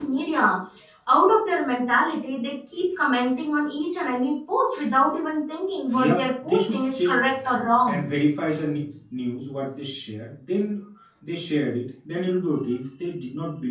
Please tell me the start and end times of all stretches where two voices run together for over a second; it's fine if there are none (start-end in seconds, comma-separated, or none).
5.9-7.2